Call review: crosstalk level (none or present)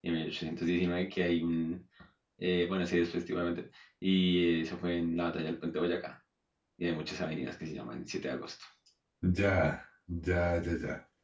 none